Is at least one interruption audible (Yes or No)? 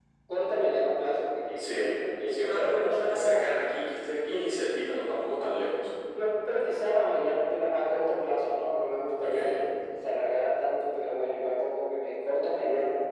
Yes